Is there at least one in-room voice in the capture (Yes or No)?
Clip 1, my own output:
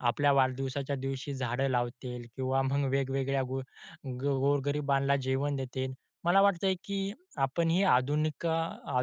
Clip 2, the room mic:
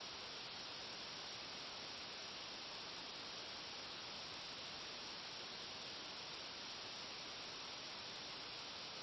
No